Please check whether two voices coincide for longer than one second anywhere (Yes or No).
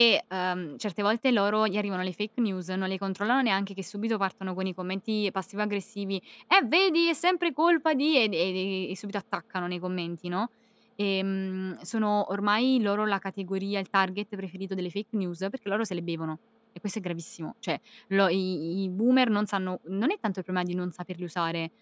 No